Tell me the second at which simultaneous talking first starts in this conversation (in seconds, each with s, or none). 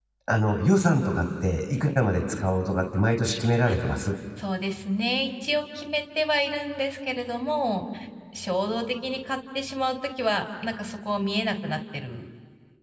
none